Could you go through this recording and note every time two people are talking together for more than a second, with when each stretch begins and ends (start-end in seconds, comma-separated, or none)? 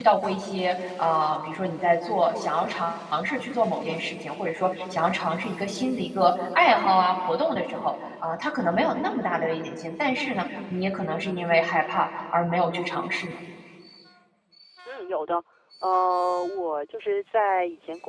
none